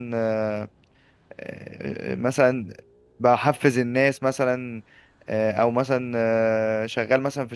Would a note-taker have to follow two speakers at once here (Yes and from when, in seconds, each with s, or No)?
No